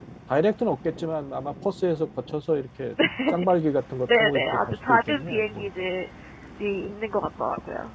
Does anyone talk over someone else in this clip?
Yes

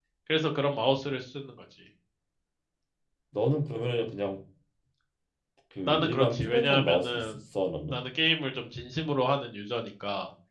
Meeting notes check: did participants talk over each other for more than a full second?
Yes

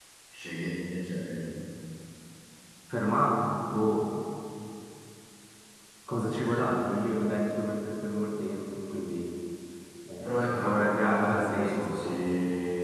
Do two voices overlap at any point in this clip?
Yes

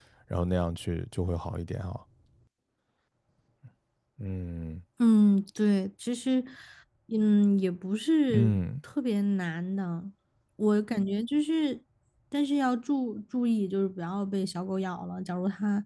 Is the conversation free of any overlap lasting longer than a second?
Yes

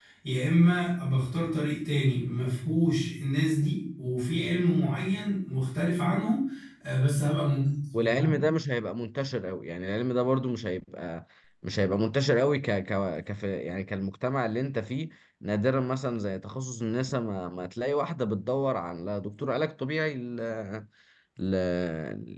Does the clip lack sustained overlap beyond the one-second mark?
Yes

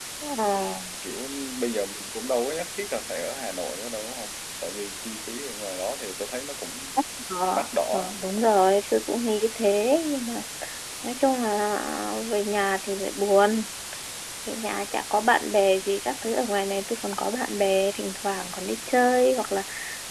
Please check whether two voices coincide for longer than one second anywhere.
No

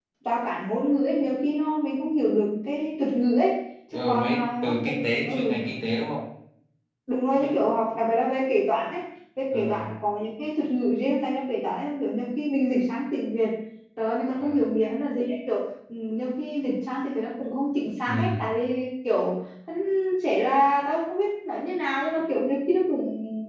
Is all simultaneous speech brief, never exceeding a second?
No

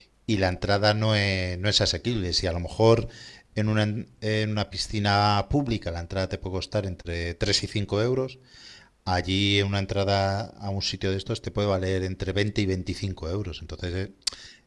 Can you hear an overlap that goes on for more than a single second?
No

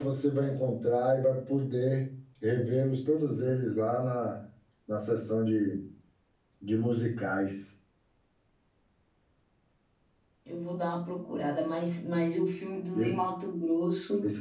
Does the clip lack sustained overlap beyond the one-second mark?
Yes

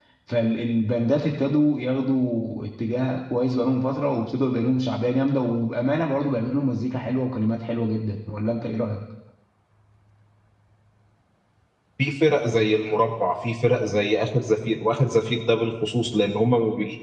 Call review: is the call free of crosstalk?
Yes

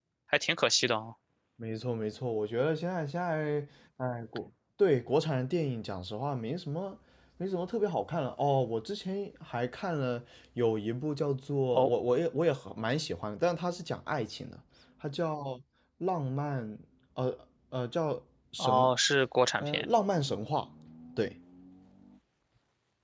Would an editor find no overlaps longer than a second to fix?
Yes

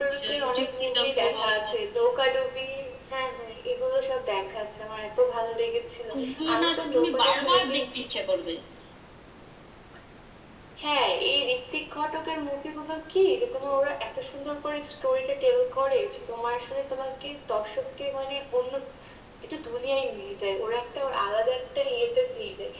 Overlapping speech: Yes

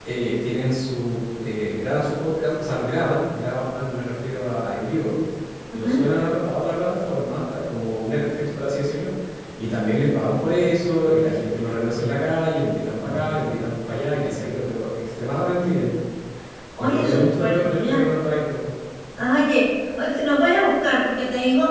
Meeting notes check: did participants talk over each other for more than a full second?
Yes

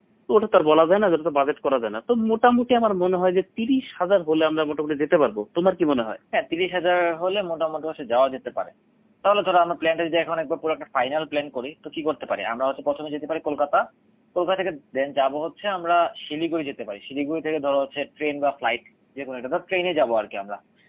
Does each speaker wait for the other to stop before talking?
Yes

